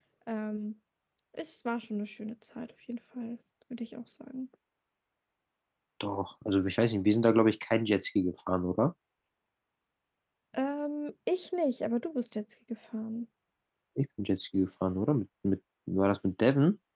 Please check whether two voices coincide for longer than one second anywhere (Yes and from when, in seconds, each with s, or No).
No